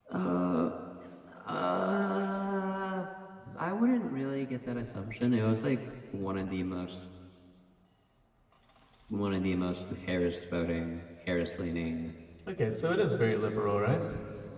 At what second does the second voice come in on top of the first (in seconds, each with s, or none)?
none